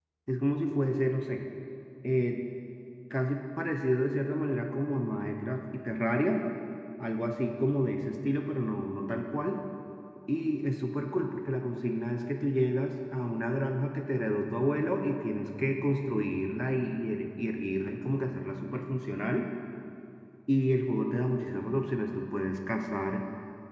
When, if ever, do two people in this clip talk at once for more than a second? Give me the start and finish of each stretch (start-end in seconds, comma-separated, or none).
none